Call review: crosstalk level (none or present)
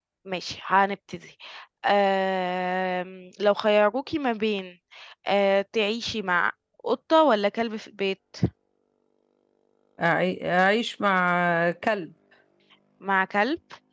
none